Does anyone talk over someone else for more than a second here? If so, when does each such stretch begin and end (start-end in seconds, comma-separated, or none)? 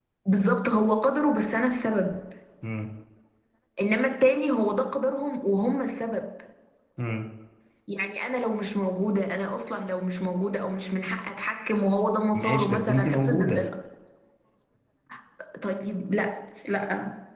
12.3-13.7